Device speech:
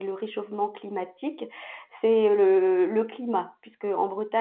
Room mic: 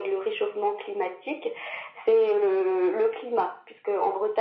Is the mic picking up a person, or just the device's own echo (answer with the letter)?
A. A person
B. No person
B